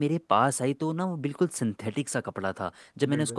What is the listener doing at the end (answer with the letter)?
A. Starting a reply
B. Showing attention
B